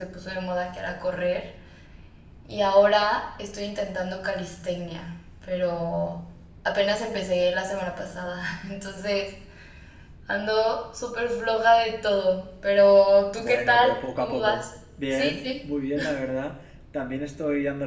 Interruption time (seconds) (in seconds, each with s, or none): 13.4 s